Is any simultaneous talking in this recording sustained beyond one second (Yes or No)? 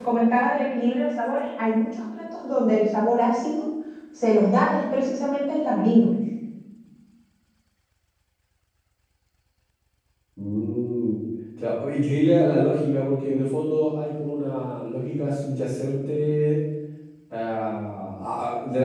No